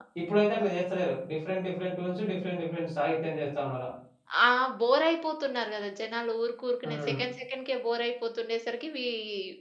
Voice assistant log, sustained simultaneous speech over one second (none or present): none